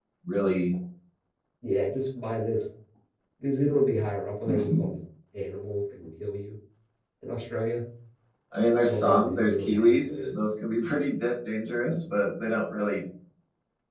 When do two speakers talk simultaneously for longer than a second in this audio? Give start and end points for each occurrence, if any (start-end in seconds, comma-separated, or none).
8.8-10.3